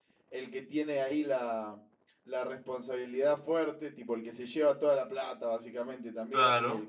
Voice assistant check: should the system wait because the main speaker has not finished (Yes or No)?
Yes